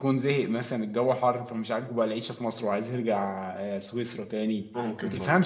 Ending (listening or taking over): listening